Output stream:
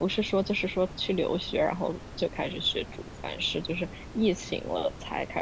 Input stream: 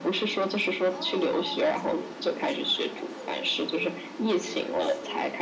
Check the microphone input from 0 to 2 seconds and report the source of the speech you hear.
both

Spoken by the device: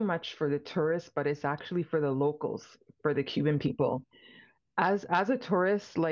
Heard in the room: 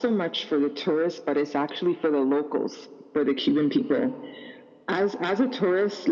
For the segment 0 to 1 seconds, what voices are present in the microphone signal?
echo only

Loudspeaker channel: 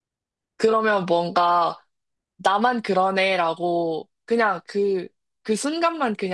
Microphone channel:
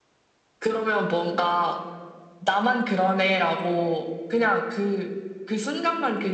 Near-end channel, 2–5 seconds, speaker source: echo only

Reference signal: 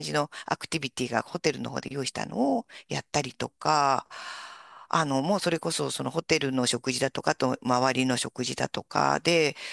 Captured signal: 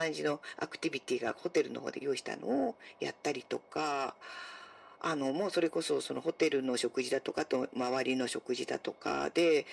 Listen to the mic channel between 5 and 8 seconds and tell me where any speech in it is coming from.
echo only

